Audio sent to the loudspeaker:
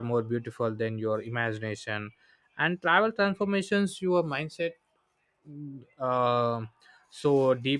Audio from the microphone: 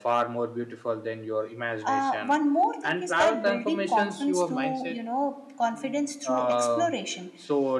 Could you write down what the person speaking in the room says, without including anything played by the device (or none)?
Uh, one more thing is that building confidence through you know confidence through exploration.